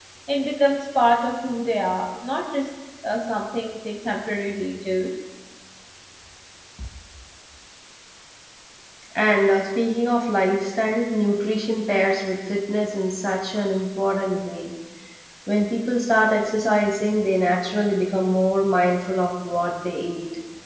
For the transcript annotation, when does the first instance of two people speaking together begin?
none

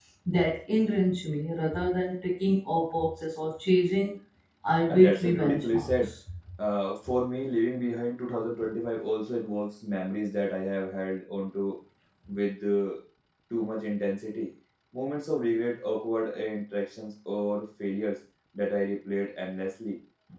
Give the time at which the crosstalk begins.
4.9 s

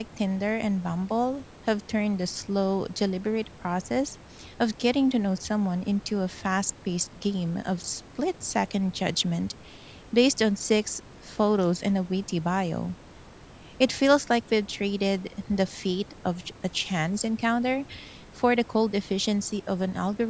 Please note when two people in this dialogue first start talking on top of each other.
none

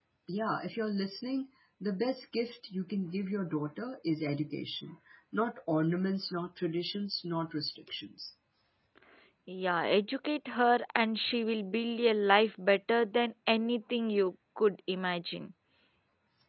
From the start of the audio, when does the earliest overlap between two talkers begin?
none

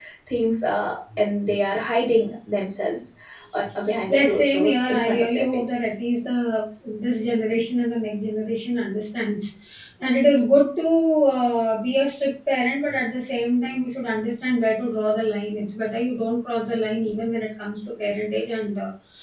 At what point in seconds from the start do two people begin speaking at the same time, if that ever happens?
4.1 s

